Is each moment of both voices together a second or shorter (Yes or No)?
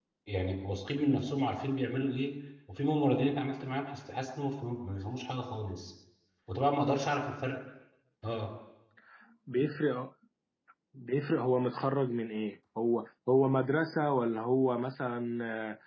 Yes